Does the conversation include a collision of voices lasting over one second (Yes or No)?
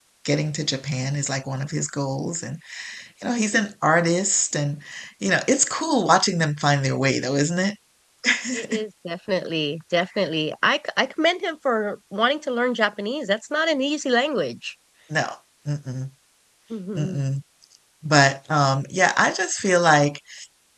No